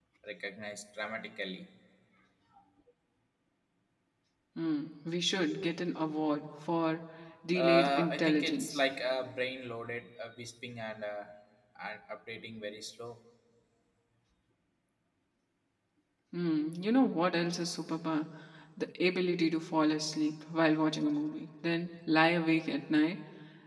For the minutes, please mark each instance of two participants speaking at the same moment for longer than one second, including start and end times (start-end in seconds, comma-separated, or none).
7.5-8.8